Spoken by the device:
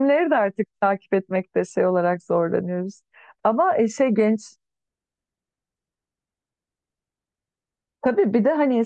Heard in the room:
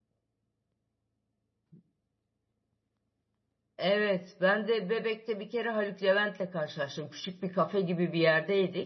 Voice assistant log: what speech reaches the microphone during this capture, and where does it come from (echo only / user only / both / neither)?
user only